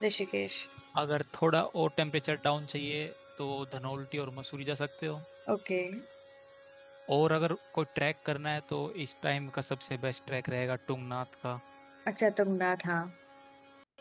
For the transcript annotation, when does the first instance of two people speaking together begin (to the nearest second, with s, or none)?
none